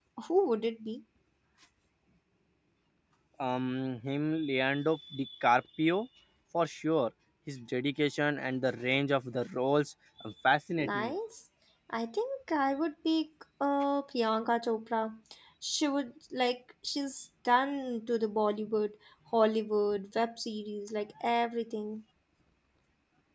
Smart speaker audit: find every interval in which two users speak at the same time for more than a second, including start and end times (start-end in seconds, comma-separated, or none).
none